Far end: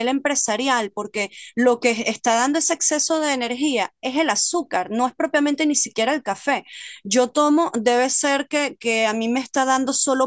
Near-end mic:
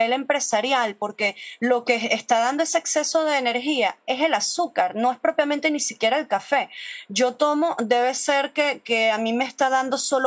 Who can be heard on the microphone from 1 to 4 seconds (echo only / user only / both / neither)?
echo only